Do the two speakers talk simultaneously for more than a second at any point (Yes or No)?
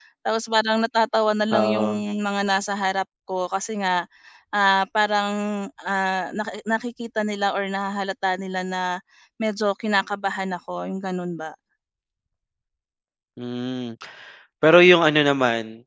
No